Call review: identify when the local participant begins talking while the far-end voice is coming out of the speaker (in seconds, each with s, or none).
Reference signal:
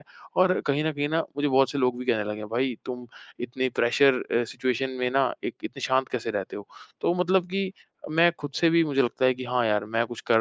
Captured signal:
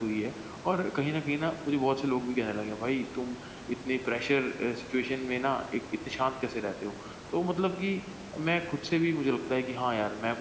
none